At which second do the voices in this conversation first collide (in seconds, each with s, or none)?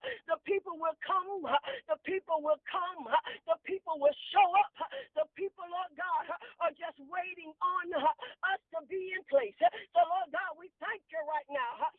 none